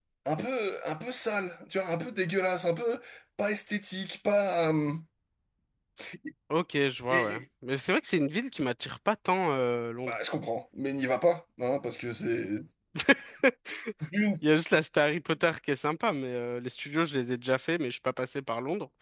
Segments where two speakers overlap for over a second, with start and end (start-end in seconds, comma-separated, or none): none